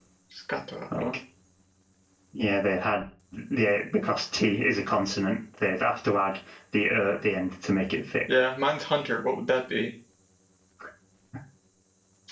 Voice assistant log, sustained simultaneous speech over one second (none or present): none